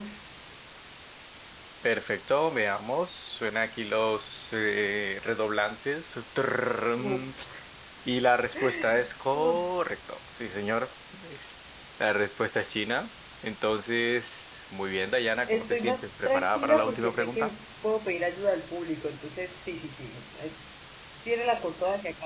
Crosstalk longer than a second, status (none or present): present